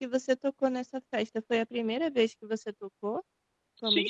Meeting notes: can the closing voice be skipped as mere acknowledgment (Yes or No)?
No